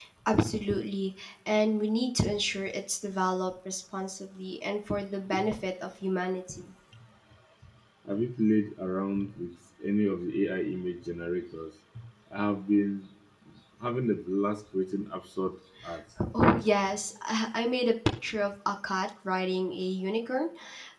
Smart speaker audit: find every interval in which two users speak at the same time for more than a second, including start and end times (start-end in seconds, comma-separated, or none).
none